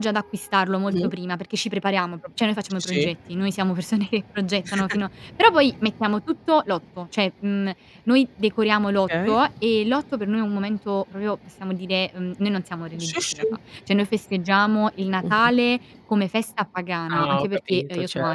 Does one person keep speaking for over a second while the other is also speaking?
Yes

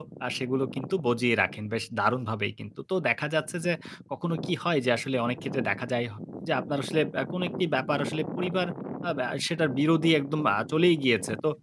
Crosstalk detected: No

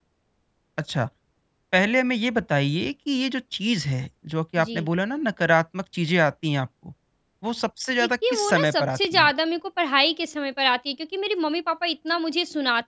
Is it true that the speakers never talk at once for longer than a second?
No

